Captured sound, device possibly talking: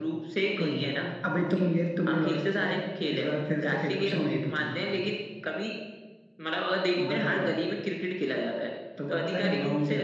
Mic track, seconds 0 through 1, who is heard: echo only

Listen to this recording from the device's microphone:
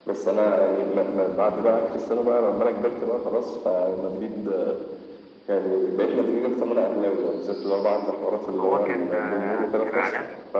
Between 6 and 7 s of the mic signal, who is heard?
echo only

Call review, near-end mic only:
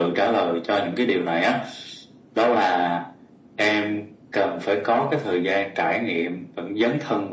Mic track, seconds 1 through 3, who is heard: echo only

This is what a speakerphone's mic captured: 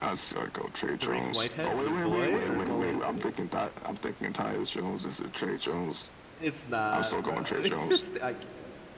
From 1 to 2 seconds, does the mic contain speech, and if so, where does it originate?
both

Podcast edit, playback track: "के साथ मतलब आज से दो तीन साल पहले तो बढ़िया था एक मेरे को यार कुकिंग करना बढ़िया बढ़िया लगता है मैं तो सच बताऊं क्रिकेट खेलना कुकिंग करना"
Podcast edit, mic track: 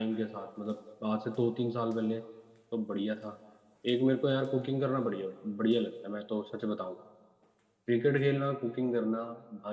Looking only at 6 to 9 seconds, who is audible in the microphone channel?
echo only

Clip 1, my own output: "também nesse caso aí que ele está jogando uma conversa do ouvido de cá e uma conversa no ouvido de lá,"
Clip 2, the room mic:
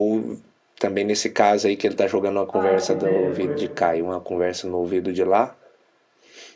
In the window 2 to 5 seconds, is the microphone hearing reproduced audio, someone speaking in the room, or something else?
both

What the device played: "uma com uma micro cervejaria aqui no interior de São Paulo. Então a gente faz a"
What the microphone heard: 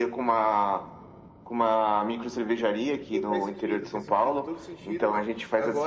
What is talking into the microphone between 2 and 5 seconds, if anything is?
both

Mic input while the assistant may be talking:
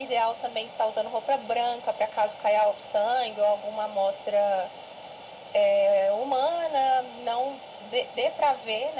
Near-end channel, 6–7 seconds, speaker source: echo only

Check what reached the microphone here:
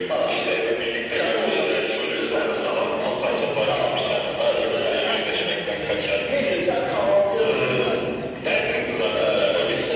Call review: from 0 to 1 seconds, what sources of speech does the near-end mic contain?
echo only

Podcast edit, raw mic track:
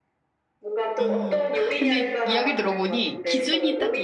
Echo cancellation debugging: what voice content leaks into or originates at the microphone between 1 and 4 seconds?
both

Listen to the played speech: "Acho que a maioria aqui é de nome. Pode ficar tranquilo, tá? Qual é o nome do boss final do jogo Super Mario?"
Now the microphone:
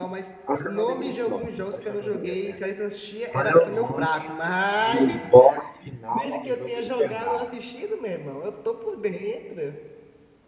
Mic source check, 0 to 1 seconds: both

